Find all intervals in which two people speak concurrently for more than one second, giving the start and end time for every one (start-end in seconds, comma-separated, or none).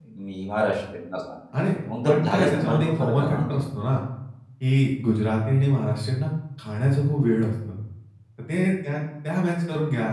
2.1-3.6